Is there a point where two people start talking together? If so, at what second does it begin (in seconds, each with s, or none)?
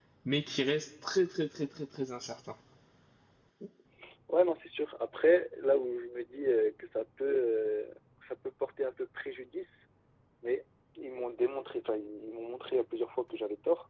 none